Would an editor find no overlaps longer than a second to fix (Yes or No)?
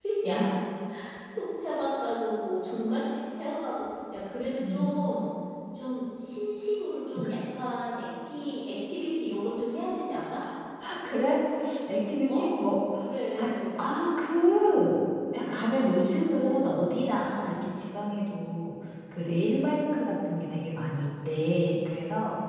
Yes